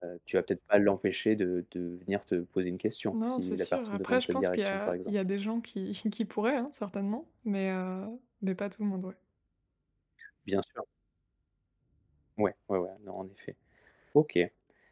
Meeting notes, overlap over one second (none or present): present